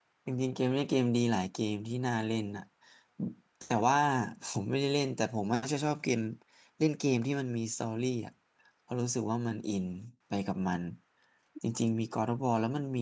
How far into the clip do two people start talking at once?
none

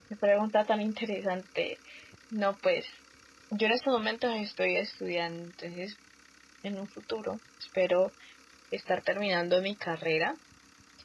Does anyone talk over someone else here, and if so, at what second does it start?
none

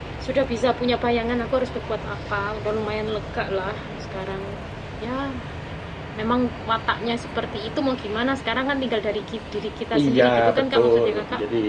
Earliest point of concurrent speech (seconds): 9.9 s

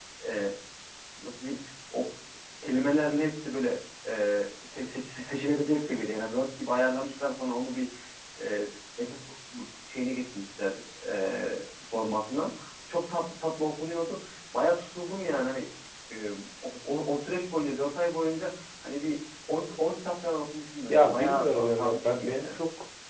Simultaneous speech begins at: 20.9 s

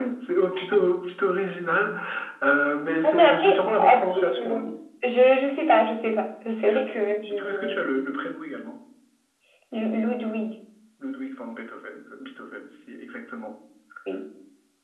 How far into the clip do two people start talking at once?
3.0 s

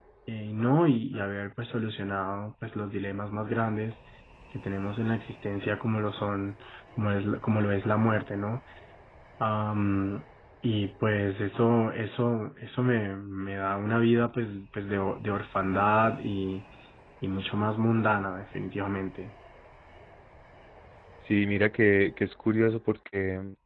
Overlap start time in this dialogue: none

